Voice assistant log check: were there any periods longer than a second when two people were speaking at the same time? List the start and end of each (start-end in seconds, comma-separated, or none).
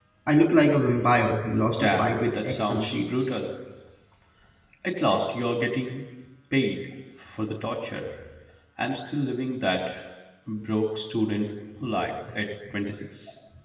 1.8-3.2